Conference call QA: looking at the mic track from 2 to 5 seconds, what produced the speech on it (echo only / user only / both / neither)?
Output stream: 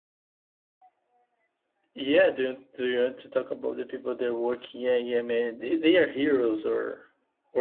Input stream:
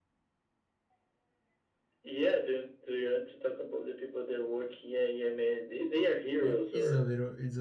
echo only